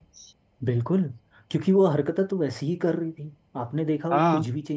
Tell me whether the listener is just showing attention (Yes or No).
Yes